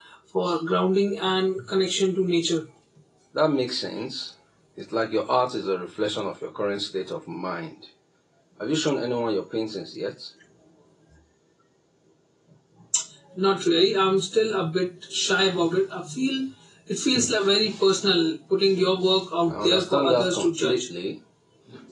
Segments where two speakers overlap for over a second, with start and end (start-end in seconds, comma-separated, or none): 19.5-20.8